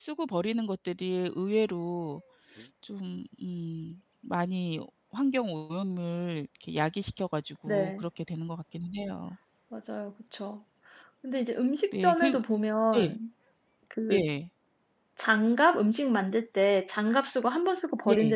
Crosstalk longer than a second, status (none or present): none